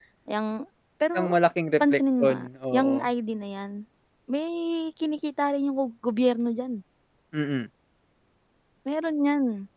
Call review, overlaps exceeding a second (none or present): present